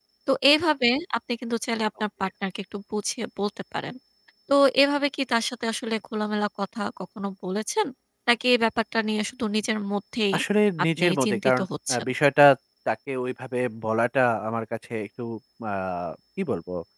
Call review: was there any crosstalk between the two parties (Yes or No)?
Yes